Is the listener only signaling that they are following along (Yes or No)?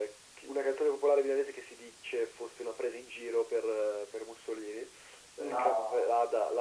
Yes